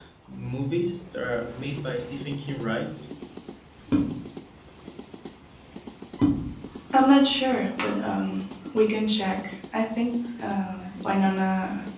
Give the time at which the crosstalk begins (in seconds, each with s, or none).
none